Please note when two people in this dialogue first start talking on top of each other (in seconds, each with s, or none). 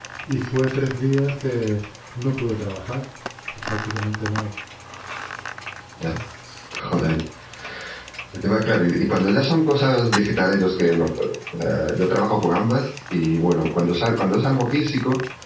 none